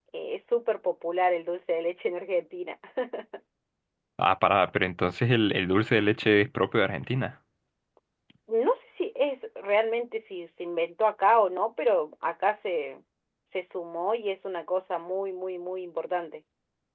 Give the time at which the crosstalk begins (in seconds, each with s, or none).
none